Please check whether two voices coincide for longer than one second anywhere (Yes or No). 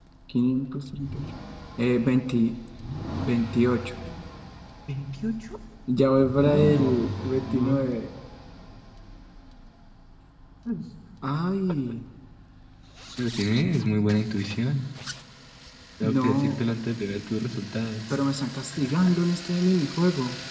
Yes